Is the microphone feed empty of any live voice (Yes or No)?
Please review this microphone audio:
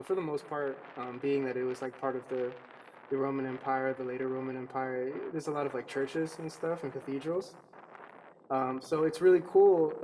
No